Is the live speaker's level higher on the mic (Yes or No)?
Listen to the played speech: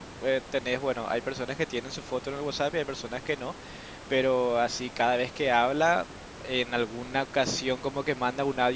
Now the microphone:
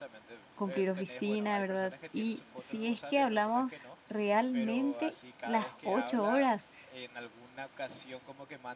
Yes